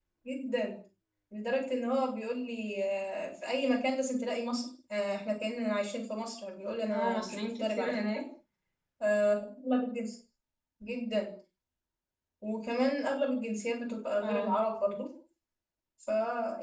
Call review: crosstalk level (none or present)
present